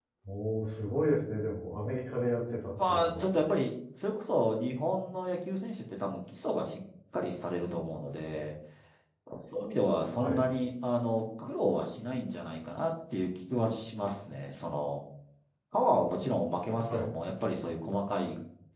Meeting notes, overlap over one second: none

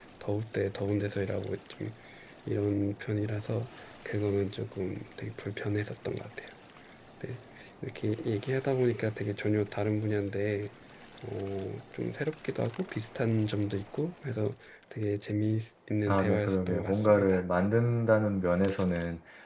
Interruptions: present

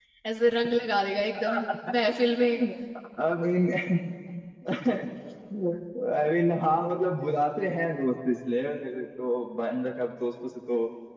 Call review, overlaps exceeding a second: none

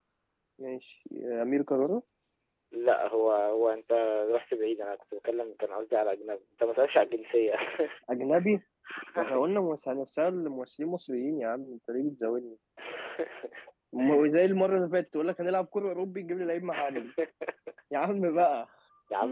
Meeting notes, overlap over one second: none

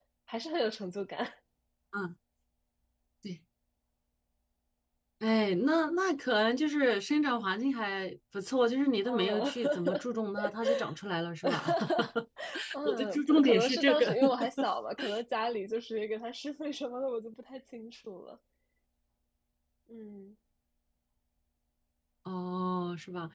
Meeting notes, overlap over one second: present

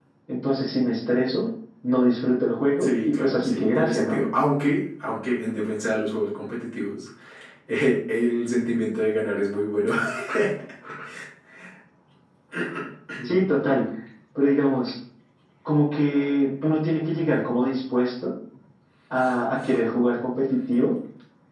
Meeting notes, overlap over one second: present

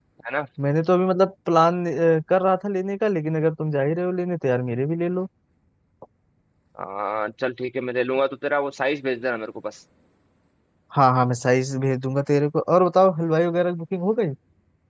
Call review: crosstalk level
none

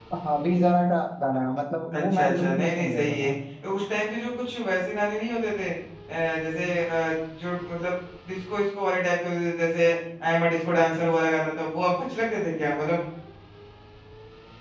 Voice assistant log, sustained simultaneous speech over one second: present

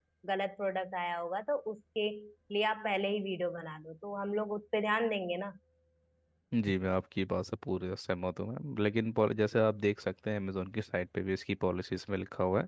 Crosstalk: none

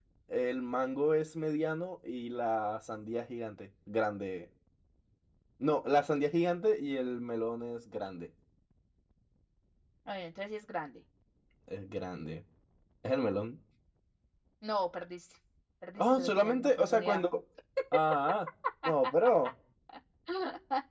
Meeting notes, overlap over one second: present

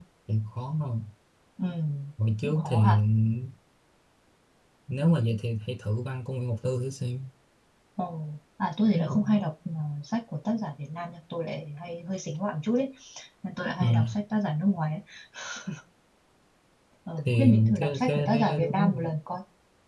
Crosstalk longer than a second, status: present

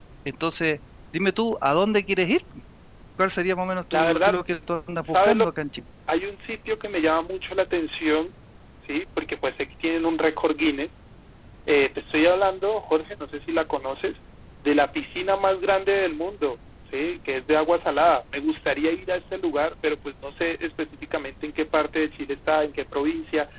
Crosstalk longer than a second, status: none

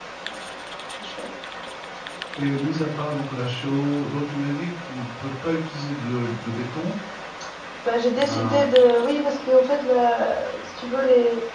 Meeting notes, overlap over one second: none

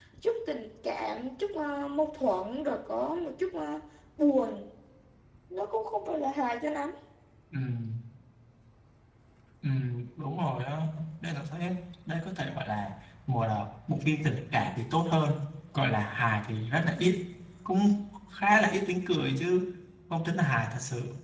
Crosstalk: none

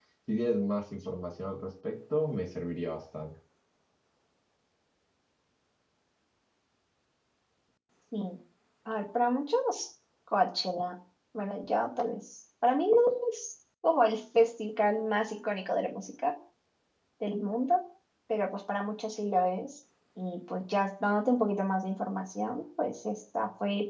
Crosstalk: none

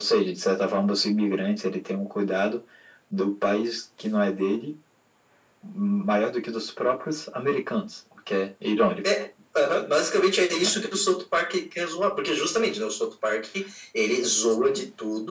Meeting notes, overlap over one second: none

